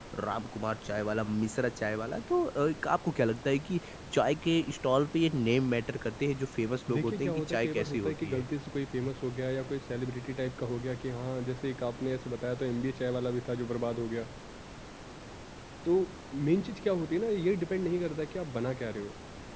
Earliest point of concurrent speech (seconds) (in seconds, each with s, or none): 6.9 s